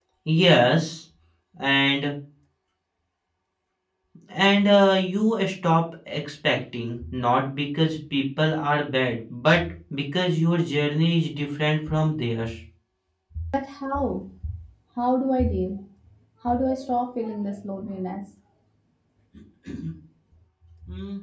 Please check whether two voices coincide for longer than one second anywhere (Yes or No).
No